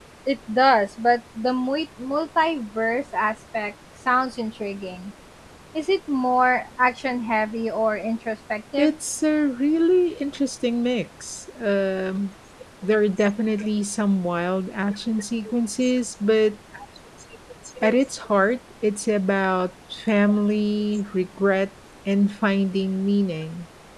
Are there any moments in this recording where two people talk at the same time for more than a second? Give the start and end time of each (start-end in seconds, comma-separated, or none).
none